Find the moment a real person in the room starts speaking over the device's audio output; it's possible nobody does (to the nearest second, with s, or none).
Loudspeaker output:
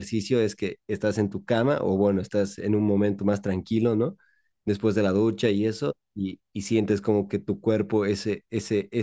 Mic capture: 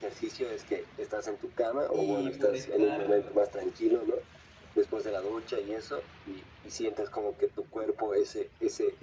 2 s